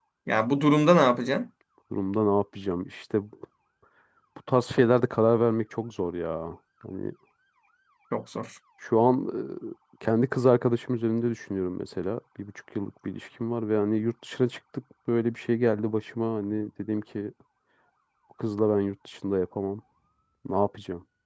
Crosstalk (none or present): none